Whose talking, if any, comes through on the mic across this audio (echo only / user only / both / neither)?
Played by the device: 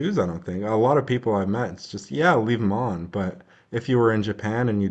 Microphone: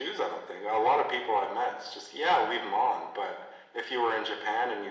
echo only